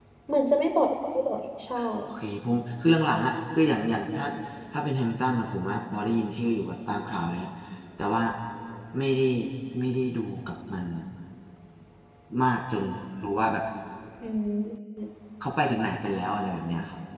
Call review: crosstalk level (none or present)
none